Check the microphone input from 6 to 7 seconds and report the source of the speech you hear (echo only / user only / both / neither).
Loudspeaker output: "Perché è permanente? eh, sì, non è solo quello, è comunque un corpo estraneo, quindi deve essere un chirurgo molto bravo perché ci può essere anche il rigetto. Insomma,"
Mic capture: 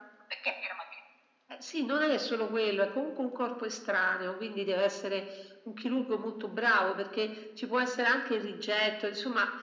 echo only